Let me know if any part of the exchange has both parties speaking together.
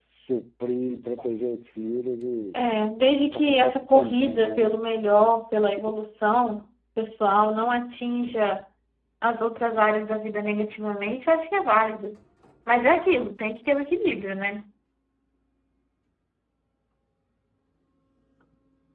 Yes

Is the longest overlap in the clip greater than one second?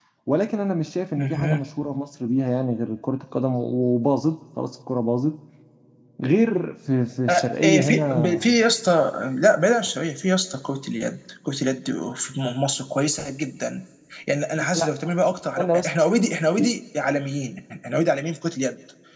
Yes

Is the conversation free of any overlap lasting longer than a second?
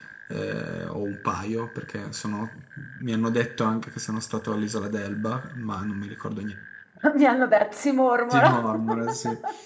Yes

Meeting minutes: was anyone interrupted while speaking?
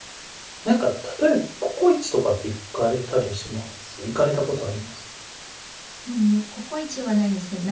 No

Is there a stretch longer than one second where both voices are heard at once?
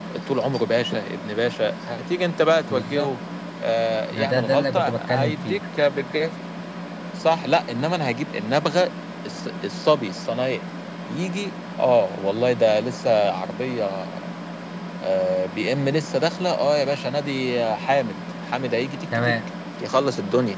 Yes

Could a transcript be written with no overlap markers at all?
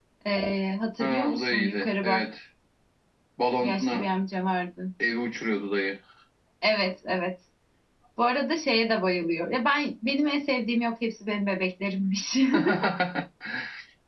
No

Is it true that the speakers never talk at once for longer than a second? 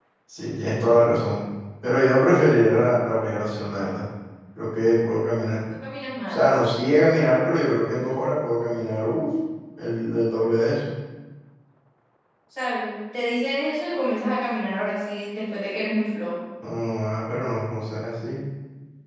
Yes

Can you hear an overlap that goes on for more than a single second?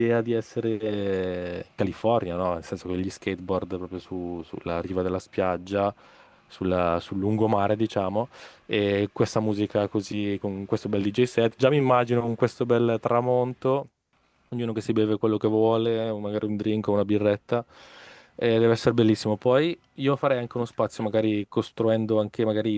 No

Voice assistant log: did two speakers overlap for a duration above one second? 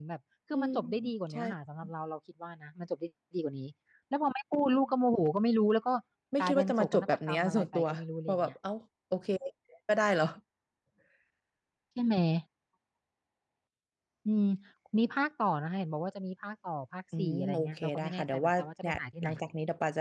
Yes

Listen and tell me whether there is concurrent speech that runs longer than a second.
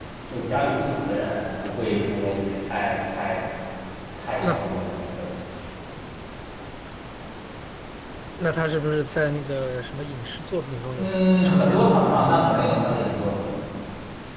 Yes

